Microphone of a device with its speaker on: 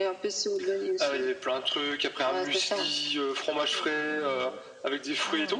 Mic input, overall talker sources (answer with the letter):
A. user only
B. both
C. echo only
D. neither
B